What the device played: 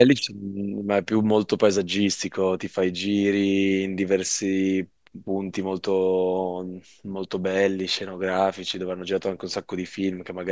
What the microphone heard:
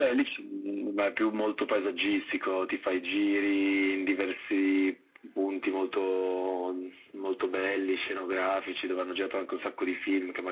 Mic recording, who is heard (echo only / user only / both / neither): echo only